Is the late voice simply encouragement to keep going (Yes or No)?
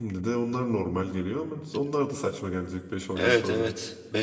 No